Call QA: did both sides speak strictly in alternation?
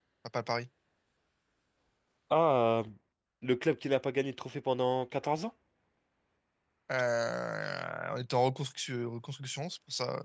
Yes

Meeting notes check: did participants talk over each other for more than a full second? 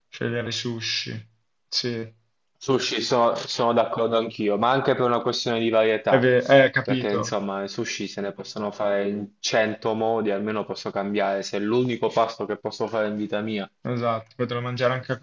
No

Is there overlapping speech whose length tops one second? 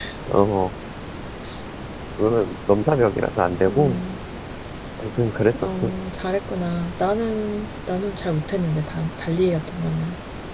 No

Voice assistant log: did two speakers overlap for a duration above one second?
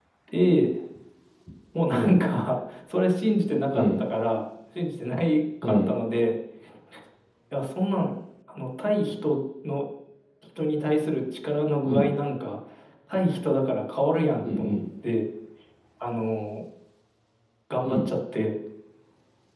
No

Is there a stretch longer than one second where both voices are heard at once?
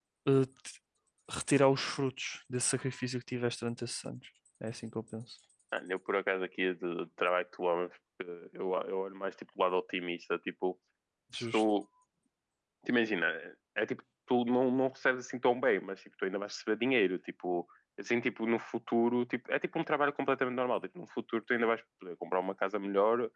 No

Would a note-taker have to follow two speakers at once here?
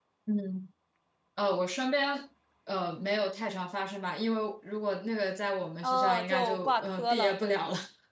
Yes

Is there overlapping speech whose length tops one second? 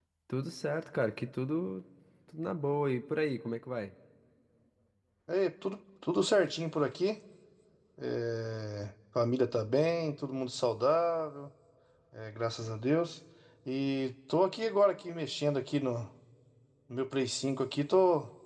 No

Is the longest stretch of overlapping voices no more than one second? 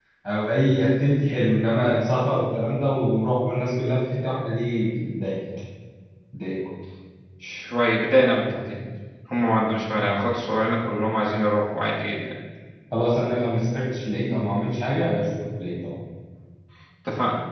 Yes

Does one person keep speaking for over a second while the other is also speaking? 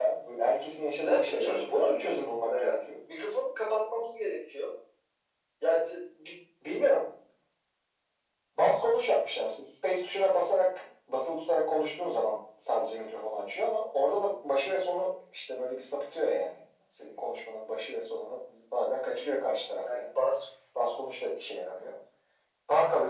Yes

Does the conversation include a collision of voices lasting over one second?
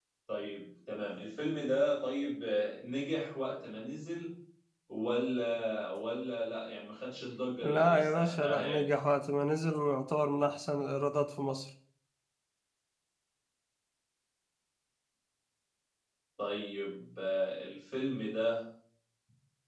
Yes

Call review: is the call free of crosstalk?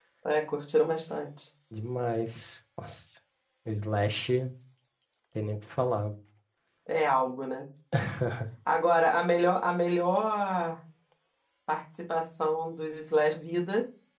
Yes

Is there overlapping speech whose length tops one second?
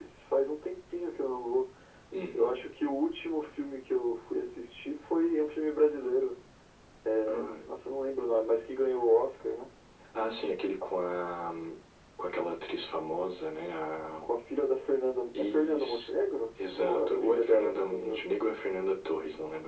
Yes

